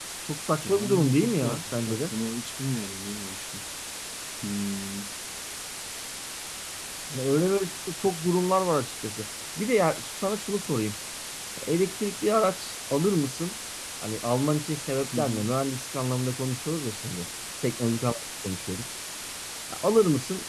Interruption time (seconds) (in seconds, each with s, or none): 0.6 s